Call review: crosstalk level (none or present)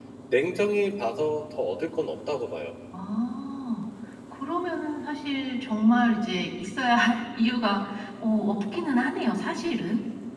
none